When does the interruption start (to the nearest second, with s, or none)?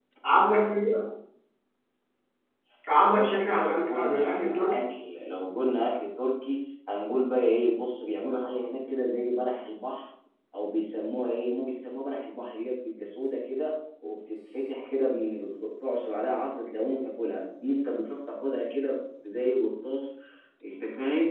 3 s